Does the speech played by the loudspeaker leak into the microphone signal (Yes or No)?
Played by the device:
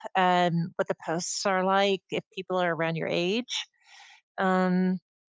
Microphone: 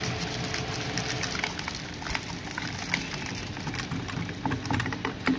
No